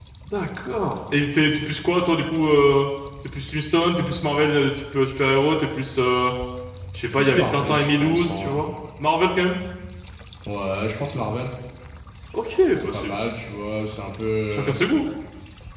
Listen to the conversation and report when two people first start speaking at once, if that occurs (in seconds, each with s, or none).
7.1 s